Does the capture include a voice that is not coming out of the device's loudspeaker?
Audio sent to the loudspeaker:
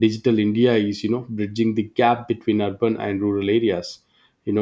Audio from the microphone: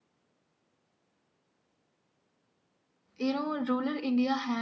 Yes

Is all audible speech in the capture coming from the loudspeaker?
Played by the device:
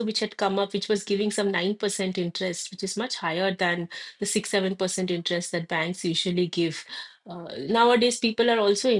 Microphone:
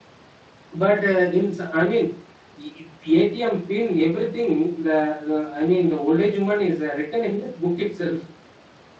No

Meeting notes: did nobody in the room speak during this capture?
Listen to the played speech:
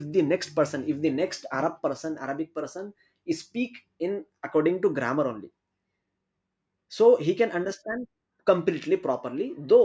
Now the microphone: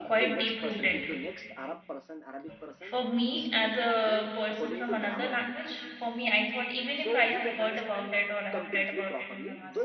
No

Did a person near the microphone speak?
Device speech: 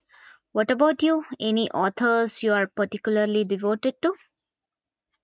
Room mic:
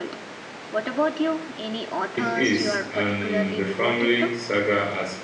Yes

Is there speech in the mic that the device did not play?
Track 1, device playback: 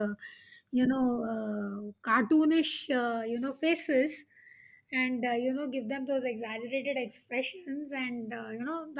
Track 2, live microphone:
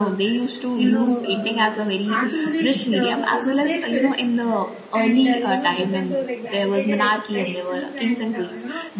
Yes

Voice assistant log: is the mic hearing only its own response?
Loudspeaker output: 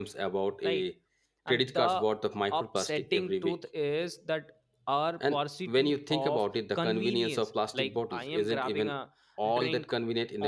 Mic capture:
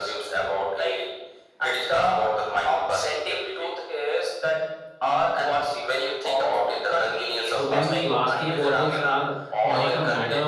No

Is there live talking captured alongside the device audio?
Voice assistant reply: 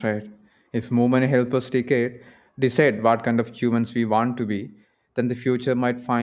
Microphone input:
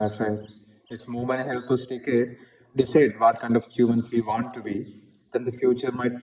No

